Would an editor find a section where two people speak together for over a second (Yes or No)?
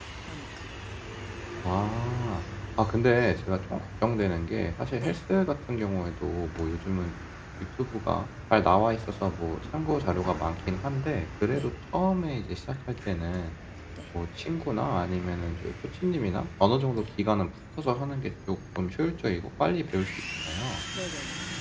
No